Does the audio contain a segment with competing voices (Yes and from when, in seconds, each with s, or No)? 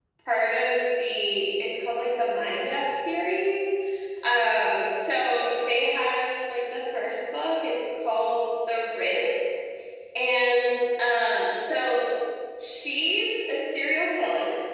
No